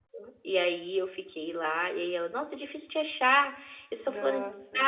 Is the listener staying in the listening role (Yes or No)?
Yes